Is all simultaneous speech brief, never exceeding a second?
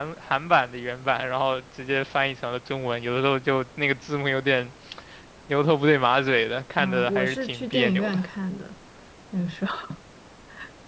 No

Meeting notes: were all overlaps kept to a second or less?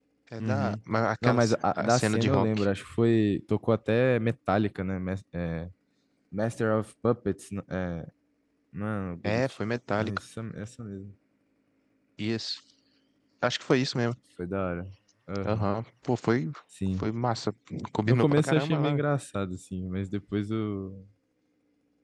No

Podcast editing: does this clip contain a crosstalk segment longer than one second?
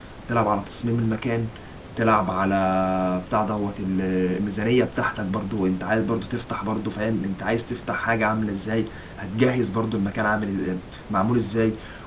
No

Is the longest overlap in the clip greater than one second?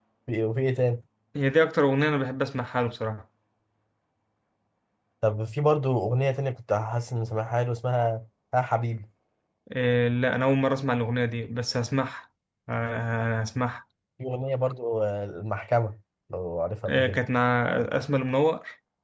No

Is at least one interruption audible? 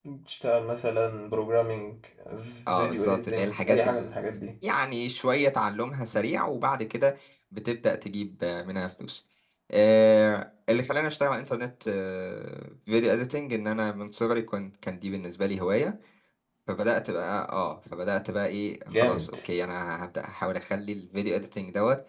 Yes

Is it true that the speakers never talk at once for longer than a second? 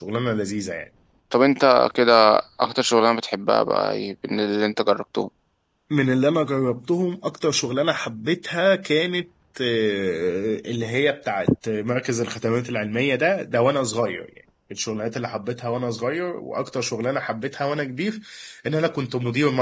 Yes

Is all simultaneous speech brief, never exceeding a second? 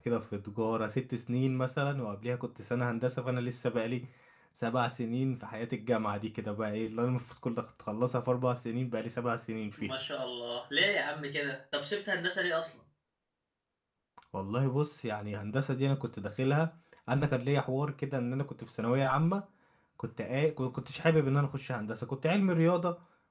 Yes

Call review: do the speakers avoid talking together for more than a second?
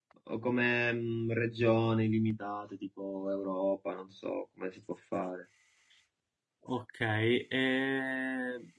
Yes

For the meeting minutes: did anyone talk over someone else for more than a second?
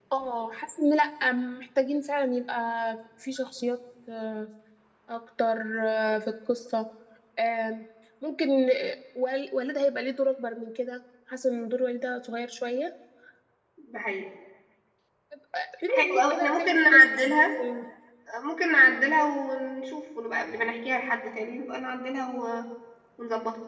Yes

